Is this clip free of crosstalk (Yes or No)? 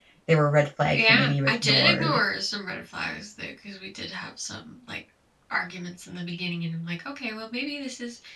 No